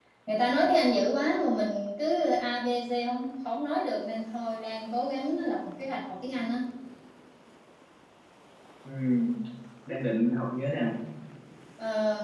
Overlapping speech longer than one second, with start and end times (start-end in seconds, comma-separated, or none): none